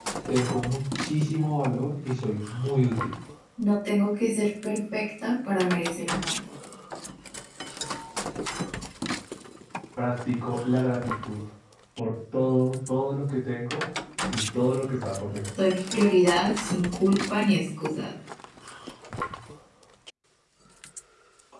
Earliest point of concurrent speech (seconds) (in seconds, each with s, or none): none